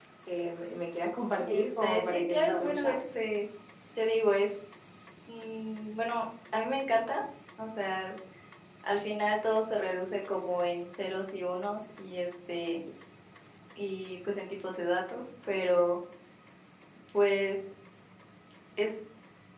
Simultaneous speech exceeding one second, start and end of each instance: 1.5-3.0

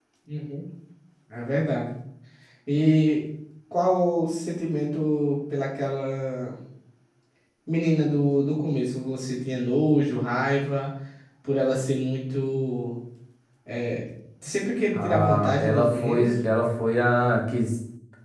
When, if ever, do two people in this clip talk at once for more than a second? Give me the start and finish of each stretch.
15.0-16.3

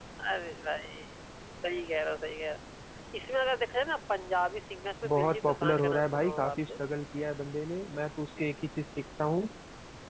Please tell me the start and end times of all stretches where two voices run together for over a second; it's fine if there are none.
5.1-6.7

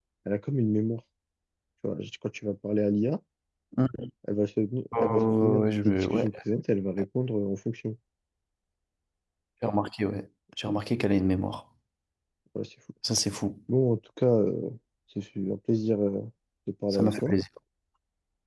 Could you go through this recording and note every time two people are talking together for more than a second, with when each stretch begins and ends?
5.0-6.3

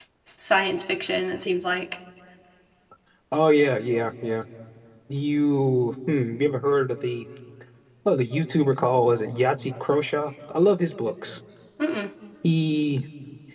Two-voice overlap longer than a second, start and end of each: none

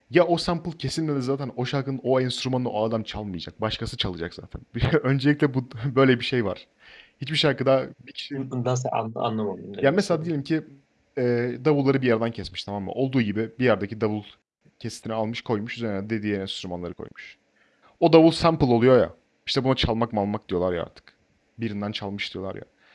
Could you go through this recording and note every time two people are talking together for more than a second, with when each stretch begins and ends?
none

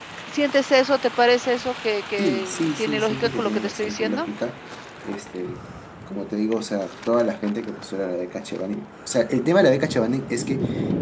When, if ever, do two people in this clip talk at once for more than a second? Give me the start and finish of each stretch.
2.2-4.3

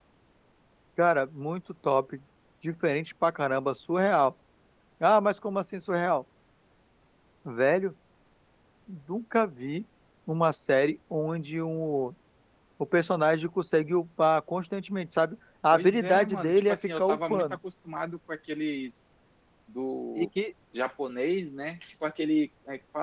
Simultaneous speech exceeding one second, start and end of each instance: 15.7-17.6

